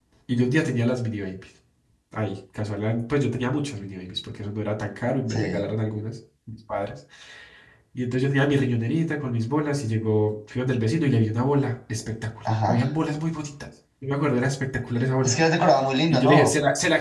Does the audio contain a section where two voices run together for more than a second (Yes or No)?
No